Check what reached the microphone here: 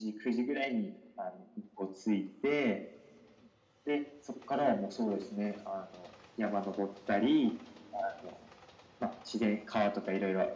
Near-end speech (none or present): none